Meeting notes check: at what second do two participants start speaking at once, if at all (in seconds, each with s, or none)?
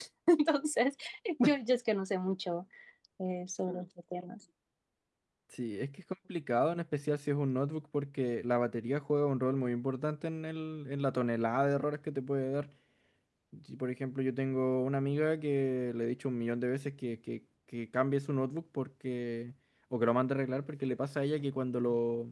none